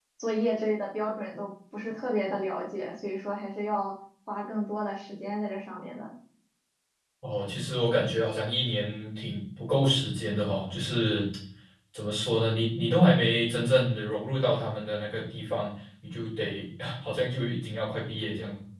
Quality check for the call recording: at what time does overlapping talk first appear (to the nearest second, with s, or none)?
none